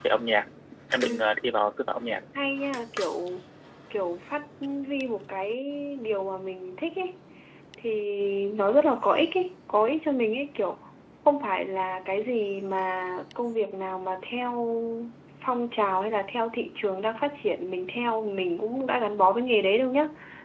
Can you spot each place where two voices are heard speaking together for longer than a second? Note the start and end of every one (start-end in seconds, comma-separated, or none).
none